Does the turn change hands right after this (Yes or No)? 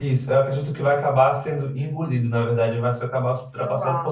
No